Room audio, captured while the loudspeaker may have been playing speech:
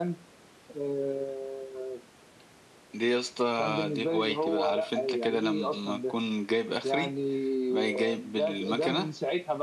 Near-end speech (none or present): none